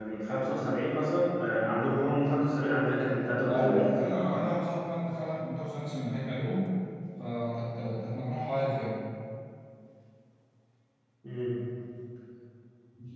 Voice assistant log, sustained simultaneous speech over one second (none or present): none